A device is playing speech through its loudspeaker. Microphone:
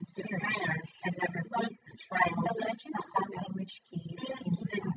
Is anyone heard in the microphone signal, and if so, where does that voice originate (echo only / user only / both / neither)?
echo only